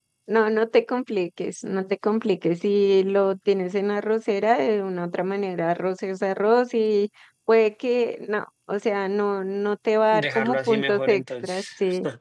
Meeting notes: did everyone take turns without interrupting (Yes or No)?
No